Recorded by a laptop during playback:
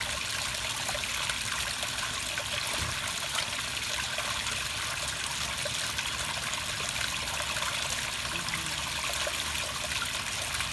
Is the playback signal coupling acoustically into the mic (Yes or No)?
No